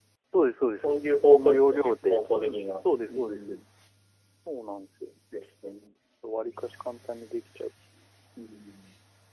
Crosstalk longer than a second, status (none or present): present